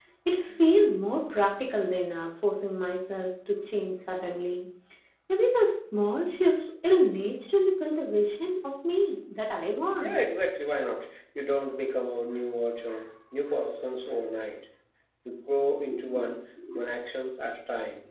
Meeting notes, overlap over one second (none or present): none